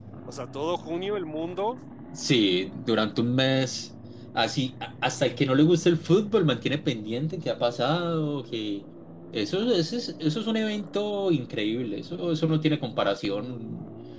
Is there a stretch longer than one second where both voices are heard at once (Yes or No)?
No